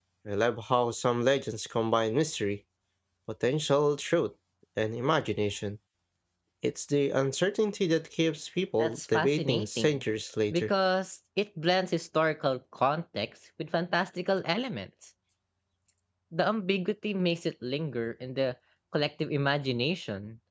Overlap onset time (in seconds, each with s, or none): 8.8 s